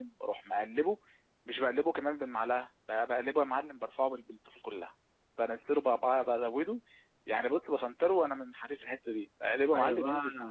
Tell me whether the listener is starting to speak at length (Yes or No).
Yes